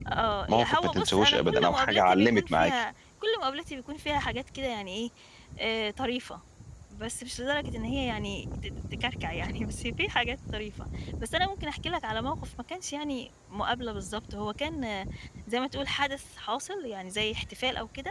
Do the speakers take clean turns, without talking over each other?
No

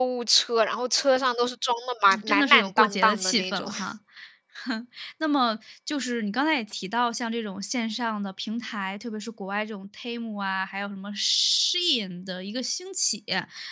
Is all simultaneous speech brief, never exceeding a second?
No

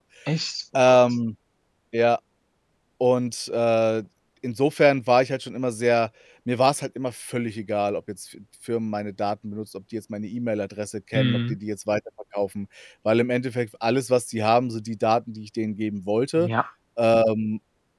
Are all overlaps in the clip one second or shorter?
Yes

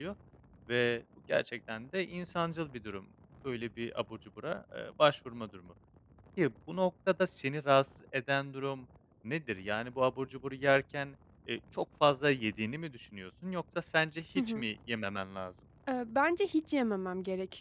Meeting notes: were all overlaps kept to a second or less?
Yes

